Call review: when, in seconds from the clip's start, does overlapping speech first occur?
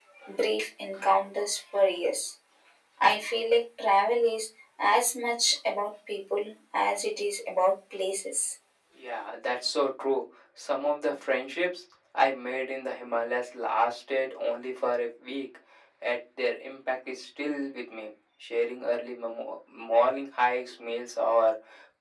none

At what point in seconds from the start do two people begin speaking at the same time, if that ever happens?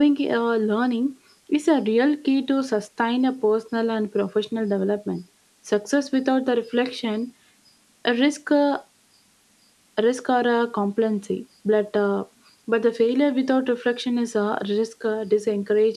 none

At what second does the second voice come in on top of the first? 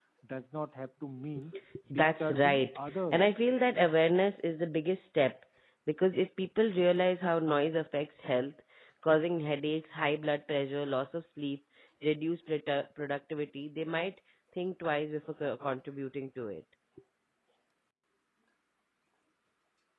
1.9 s

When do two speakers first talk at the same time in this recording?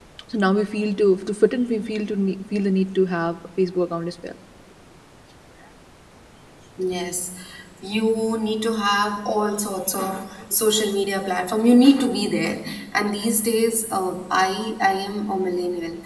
none

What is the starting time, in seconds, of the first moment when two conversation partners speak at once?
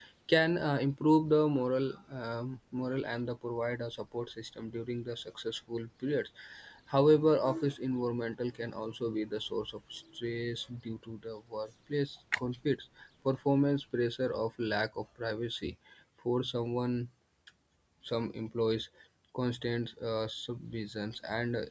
none

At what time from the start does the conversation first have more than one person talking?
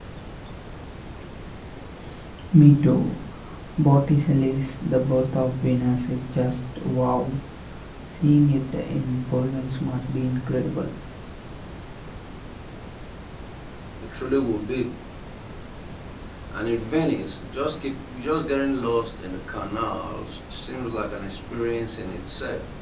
none

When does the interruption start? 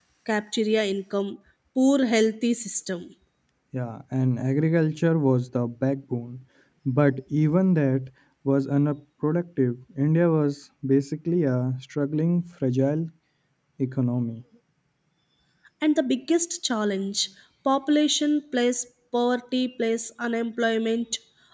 none

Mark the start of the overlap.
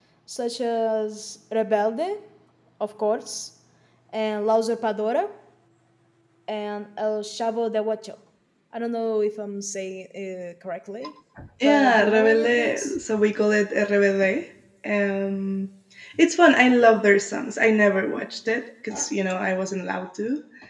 11.6 s

